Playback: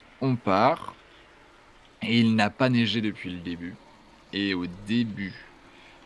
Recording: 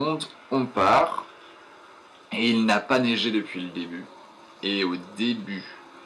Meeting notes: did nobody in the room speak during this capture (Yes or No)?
Yes